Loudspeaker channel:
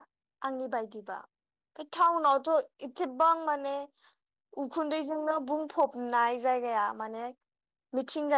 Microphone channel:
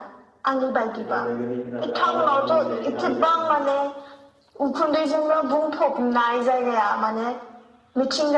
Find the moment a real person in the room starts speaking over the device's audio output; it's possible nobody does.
1.0 s

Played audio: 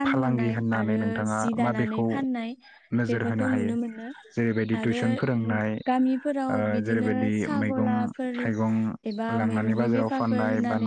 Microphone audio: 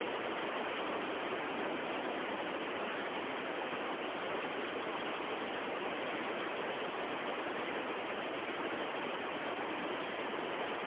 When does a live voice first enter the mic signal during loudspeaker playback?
none

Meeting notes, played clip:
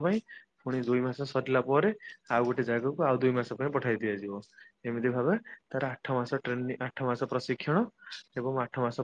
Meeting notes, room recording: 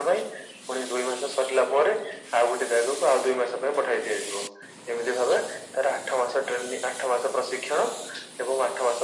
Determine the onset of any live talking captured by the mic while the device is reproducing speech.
none

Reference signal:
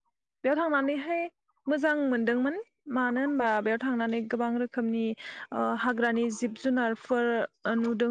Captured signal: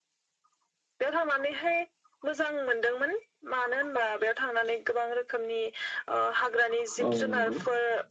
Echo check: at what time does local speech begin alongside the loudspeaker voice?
7.1 s

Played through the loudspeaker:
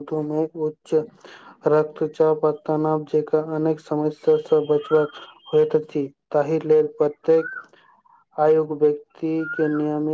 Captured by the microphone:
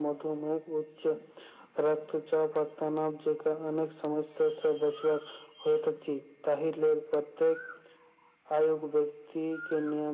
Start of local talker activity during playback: none

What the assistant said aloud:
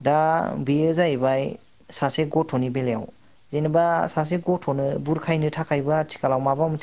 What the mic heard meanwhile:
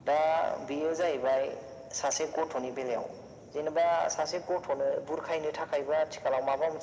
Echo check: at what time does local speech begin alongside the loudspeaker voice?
none

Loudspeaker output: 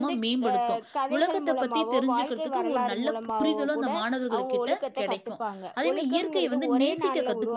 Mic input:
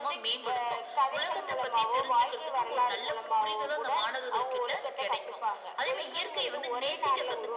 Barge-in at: none

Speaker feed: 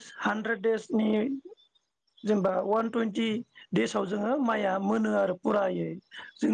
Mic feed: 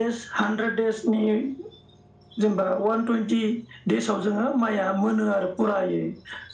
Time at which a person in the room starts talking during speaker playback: none

